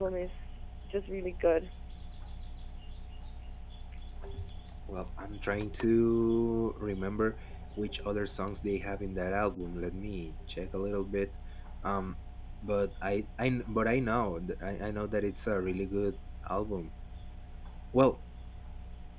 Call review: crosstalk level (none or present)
none